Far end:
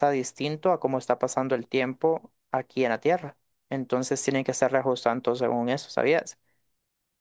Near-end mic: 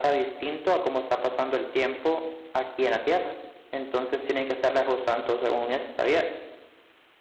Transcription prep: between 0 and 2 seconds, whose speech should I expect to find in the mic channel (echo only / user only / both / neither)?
echo only